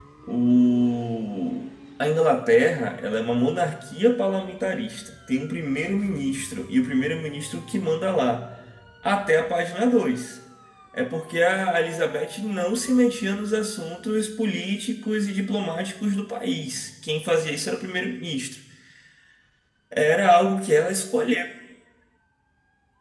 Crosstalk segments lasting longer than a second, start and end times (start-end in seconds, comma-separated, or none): none